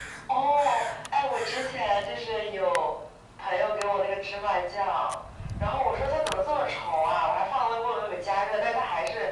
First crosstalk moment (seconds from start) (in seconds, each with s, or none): none